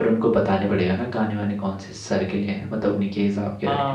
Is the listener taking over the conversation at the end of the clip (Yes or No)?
Yes